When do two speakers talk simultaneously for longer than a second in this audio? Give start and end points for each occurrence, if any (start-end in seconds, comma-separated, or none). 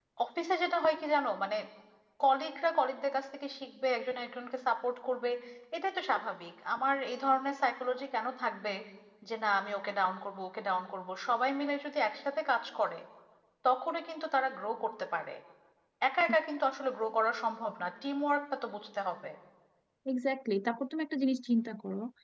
none